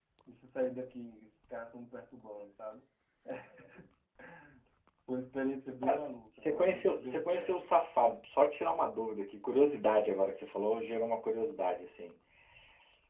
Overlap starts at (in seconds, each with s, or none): 5.8 s